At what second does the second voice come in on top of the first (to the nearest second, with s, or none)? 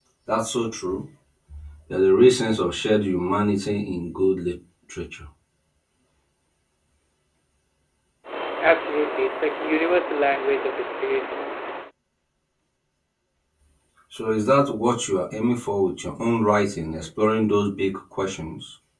none